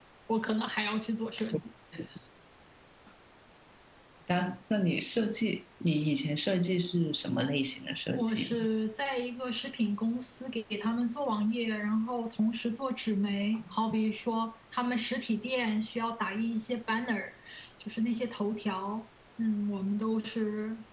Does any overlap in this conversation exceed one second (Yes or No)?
No